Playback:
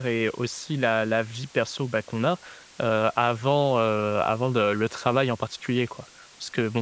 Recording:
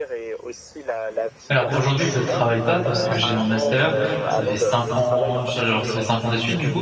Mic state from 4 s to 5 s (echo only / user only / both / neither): both